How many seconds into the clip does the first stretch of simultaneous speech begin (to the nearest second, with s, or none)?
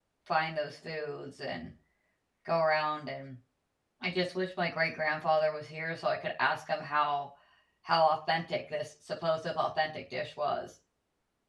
none